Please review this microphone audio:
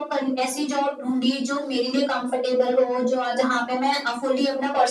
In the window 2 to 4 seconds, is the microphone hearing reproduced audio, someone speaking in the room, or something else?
echo only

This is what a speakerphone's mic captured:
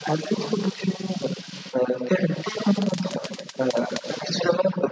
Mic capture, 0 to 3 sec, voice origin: echo only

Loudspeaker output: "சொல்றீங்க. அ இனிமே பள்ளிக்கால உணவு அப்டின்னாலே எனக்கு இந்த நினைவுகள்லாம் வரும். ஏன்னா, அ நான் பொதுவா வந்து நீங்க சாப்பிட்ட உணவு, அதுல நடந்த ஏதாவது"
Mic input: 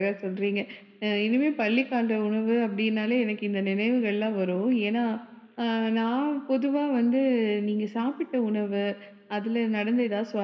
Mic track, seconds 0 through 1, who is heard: echo only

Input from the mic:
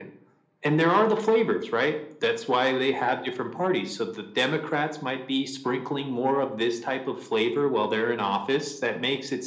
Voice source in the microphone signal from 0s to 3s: echo only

